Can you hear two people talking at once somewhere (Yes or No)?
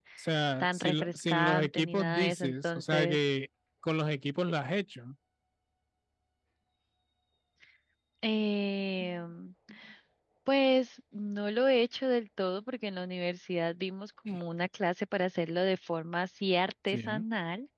Yes